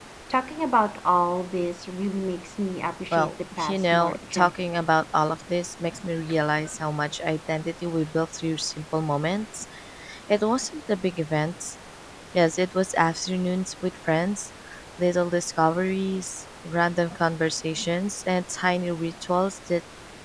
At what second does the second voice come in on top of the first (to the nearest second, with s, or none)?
3 s